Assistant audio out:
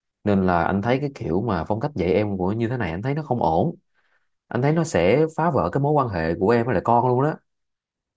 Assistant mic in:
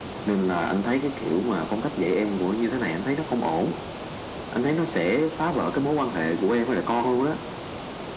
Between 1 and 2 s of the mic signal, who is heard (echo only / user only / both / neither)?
echo only